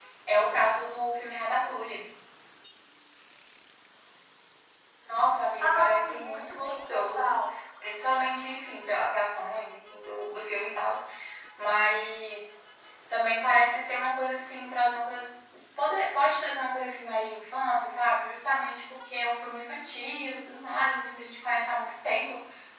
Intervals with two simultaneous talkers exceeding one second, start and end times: 5.7-7.4

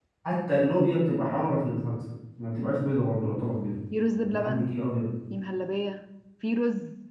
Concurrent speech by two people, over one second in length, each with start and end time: none

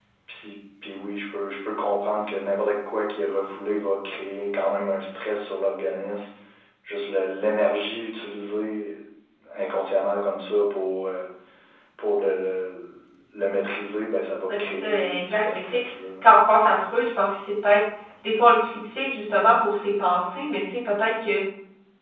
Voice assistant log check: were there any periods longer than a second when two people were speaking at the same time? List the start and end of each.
14.5-15.8

